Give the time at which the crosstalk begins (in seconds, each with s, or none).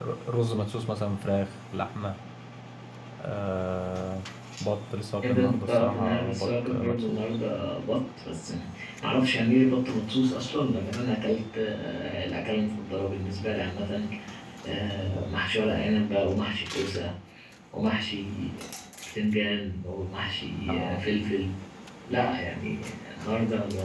5.2 s